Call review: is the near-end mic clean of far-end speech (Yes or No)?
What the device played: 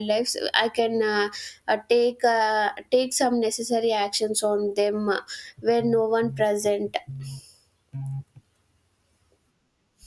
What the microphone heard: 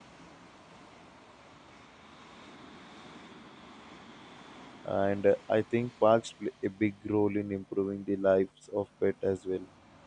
Yes